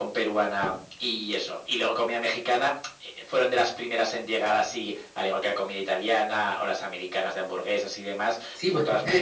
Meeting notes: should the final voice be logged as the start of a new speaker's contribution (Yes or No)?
Yes